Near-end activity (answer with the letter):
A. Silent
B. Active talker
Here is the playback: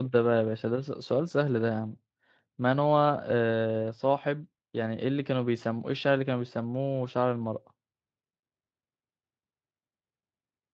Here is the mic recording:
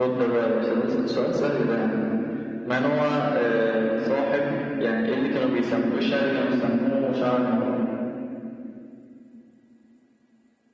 A